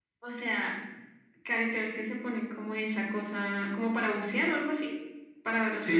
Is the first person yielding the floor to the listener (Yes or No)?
Yes